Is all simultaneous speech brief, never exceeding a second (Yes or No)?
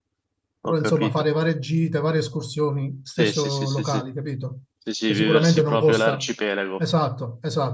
No